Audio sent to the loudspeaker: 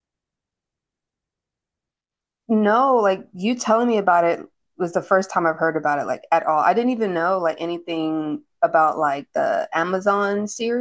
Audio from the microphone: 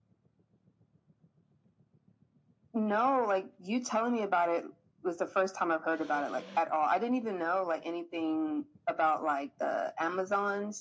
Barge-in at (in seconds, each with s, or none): none